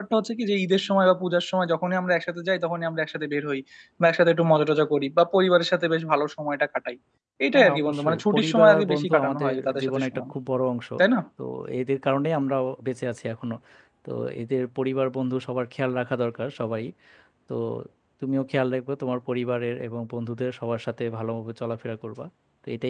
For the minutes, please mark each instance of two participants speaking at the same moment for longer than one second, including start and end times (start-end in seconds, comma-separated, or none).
7.5-10.2